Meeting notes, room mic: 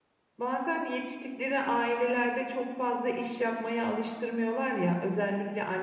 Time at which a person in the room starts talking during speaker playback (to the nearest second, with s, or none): 0 s